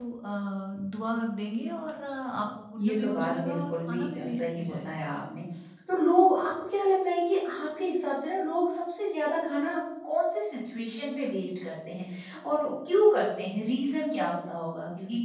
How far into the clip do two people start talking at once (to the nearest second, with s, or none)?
3 s